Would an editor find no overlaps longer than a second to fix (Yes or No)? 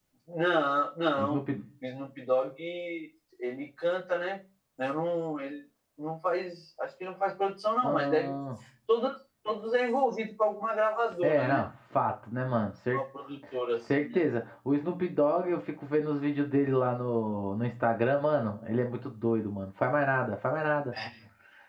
Yes